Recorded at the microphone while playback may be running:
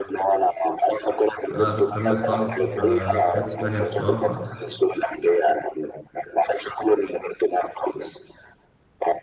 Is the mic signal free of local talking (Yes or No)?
No